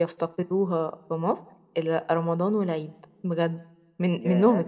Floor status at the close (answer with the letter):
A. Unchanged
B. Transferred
A